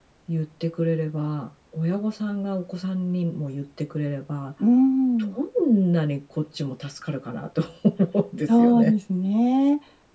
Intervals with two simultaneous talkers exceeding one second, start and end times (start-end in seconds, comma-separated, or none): none